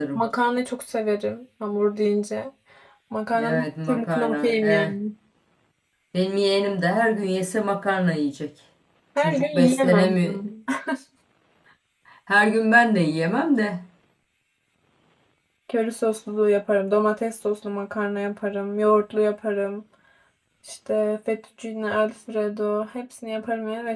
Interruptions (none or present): present